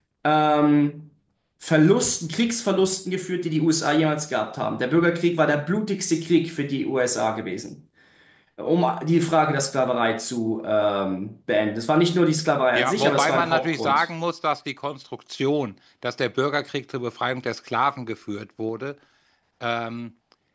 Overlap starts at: 12.7 s

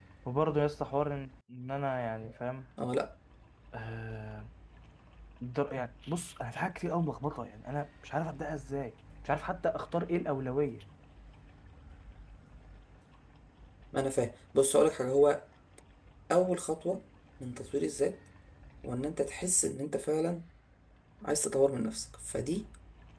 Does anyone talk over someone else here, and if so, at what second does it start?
none

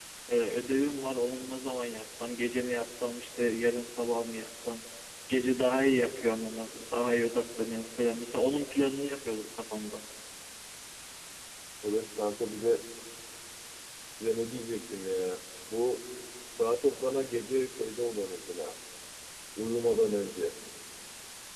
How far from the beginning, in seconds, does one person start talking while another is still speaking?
none

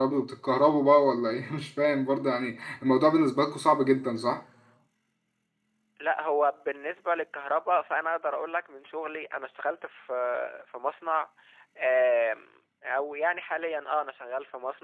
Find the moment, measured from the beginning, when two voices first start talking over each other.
none

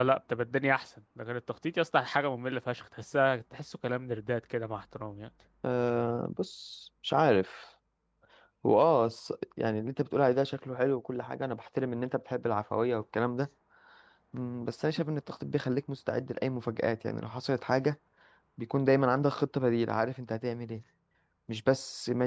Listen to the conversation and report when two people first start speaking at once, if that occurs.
none

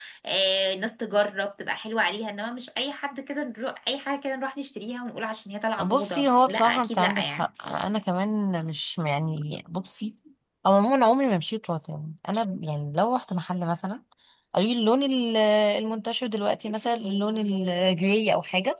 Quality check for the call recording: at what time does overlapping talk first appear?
5.8 s

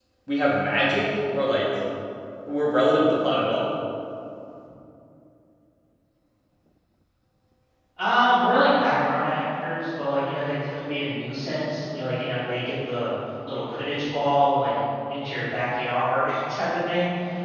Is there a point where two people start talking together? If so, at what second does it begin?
none

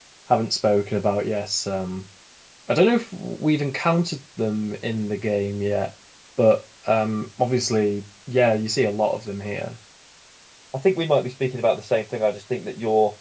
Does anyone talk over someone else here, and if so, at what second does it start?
none

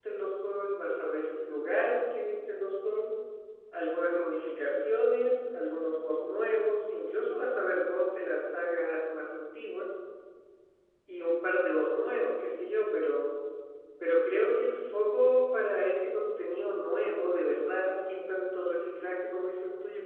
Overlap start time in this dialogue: none

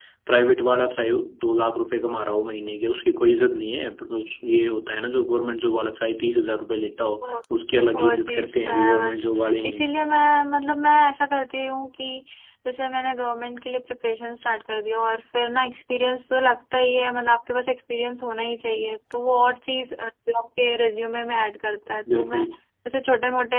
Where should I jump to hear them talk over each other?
8.0 s

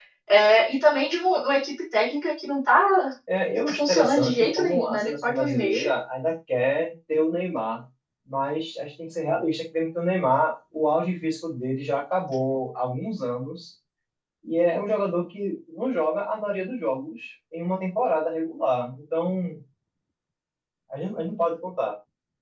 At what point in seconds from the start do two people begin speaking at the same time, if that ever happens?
3.7 s

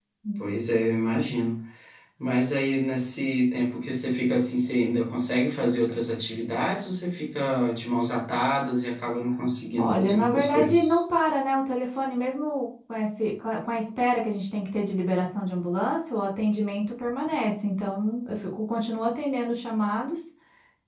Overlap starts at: 9.8 s

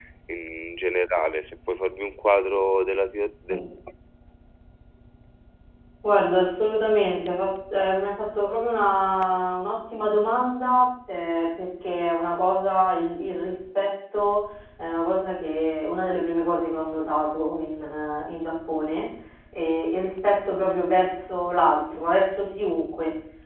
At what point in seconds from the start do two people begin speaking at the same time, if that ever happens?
none

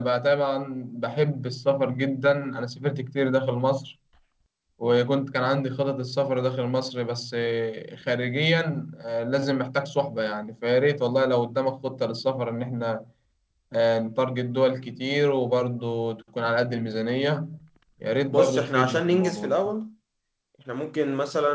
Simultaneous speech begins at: 18.3 s

